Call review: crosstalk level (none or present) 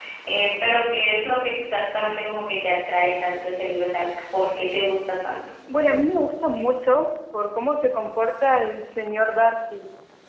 none